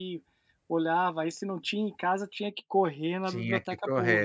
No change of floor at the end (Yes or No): No